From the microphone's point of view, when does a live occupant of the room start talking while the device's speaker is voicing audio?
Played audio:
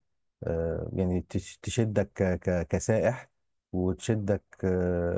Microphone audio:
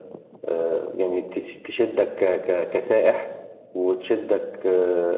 none

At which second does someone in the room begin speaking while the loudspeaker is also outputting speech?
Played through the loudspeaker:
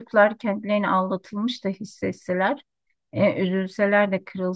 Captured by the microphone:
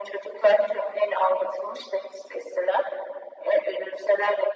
none

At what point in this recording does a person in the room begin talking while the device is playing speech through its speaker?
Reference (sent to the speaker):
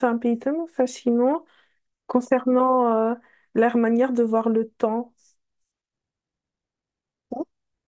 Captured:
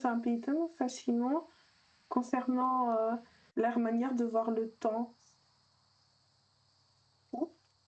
none

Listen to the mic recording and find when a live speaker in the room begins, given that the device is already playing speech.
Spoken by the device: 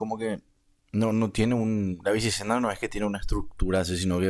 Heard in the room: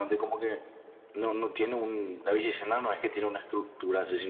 none

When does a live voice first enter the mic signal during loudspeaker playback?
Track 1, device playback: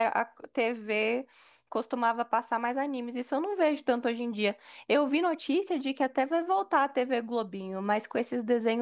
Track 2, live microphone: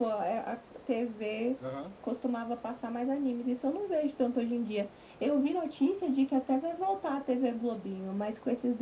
1.6 s

